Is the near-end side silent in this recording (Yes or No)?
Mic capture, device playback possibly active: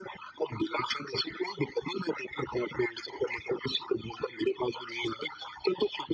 Yes